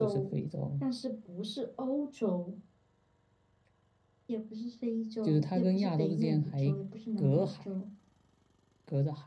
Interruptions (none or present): present